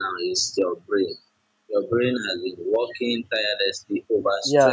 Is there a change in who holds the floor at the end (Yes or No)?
No